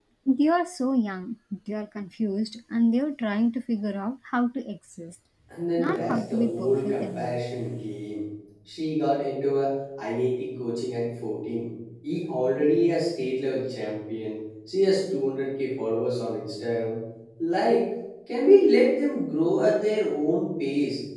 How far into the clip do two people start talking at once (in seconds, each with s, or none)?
5.8 s